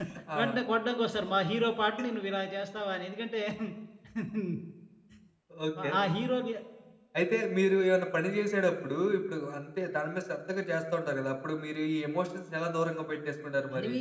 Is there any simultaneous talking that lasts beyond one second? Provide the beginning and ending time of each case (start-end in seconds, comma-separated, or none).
none